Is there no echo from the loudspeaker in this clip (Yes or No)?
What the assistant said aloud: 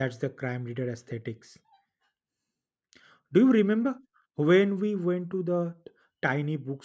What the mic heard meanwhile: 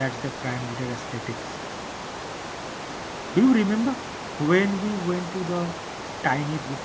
No